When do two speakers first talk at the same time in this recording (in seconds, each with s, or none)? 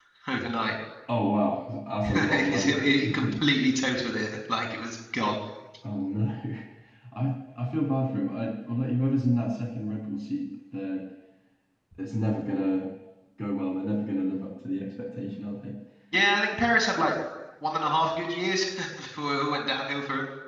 2.0 s